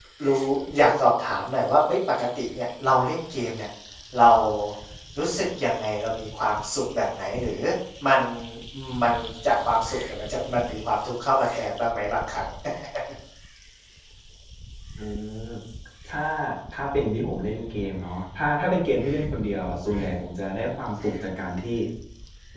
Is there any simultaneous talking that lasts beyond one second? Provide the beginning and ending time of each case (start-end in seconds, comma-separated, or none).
none